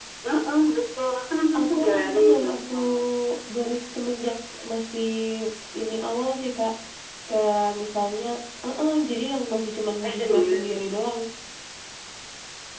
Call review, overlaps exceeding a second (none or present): present